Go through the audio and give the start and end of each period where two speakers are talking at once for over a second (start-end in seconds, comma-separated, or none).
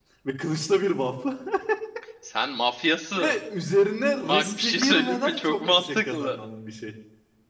4.3-6.5